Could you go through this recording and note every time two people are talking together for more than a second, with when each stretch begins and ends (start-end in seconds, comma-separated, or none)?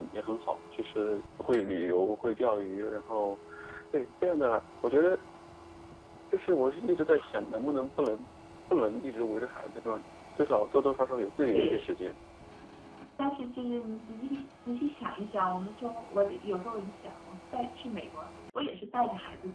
none